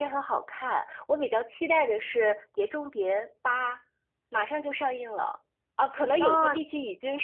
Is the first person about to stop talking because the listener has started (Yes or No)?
No